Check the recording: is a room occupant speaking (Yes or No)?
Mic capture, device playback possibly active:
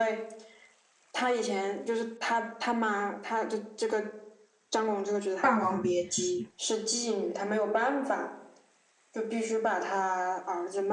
Yes